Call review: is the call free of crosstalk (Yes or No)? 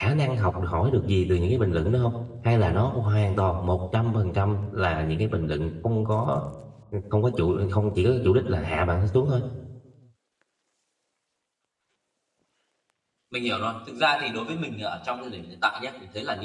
Yes